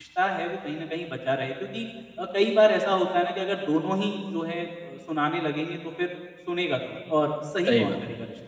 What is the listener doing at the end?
listening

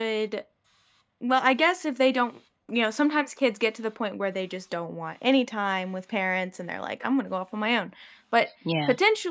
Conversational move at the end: listening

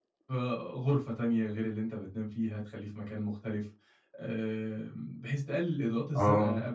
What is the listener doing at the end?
listening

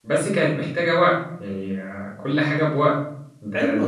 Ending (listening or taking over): taking over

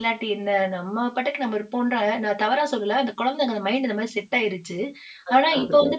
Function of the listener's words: listening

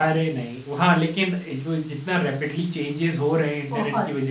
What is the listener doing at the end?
listening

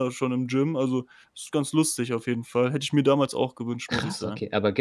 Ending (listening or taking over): taking over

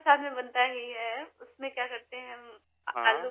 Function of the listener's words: listening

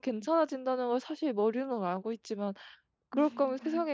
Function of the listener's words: listening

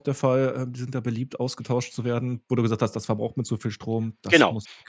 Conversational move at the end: taking over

